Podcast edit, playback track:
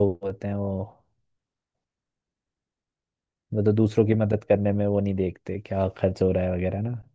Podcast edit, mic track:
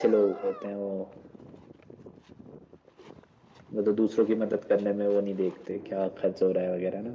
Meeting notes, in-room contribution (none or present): none